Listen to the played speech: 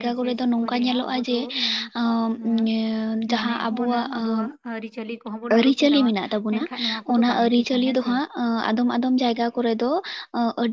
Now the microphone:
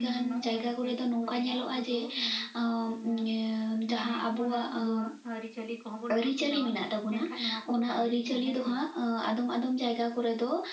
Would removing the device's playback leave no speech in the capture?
Yes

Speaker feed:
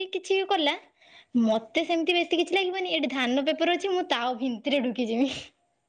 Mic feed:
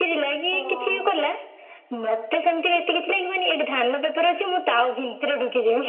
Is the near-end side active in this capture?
Yes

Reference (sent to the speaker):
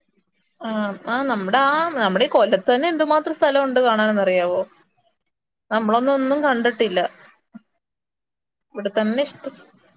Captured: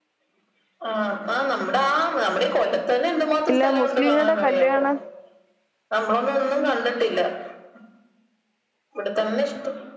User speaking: Yes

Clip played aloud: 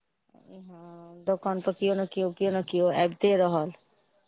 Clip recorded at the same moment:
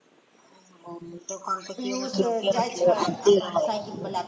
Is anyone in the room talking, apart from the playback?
Yes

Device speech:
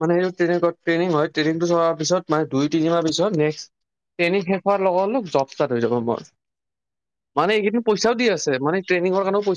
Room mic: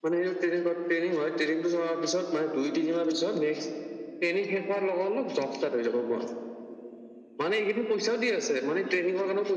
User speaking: No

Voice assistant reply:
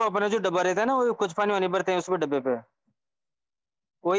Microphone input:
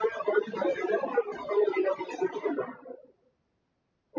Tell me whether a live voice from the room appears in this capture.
No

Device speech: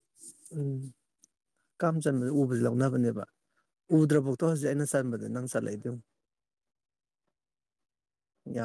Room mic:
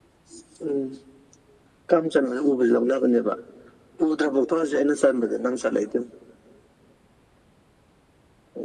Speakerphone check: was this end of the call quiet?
Yes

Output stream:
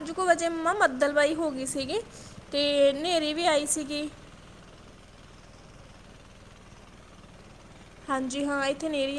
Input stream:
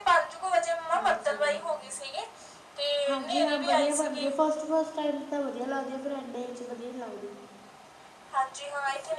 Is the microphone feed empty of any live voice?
No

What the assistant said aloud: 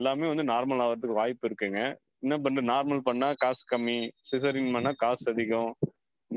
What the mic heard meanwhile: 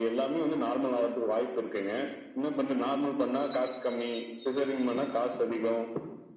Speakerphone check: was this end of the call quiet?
Yes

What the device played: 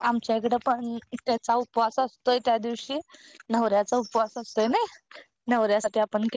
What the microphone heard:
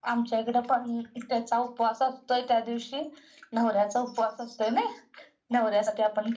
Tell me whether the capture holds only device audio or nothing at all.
Yes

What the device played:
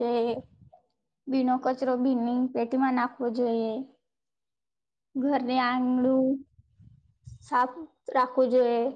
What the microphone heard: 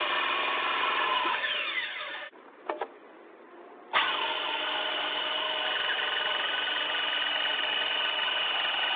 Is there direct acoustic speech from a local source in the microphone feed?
No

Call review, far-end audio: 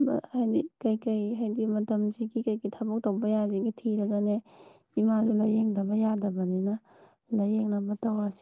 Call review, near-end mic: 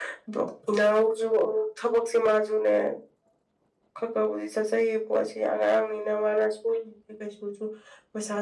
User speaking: Yes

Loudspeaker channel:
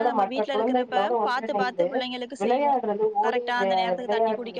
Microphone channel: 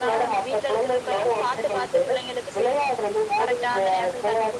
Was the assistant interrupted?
No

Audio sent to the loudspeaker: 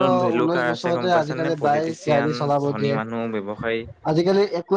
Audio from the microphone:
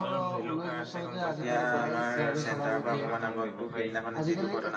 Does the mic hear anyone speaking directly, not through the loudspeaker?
Yes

